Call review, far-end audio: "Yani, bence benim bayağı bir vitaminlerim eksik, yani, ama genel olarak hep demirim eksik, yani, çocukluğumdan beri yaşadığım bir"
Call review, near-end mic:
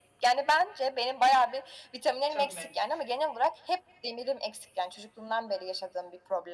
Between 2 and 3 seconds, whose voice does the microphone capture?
both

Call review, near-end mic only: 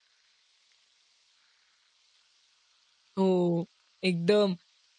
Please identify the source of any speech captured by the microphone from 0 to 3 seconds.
neither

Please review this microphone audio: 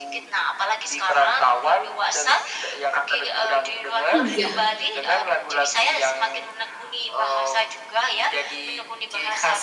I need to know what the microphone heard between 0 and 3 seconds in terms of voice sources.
echo only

